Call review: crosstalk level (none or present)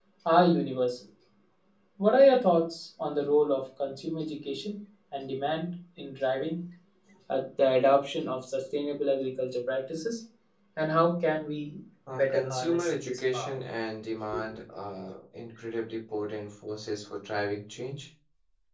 present